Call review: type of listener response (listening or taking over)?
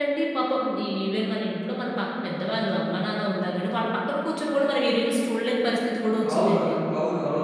taking over